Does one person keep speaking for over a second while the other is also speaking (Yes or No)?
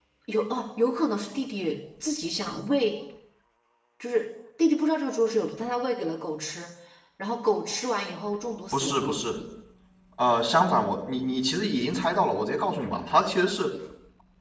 No